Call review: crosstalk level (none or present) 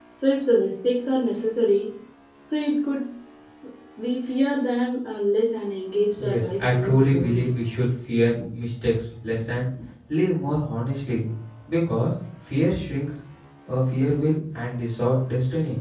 present